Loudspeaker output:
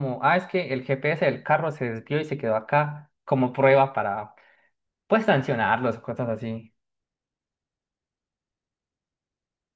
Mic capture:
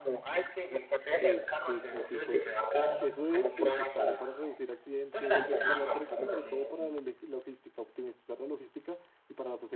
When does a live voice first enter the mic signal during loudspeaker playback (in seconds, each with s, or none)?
1.1 s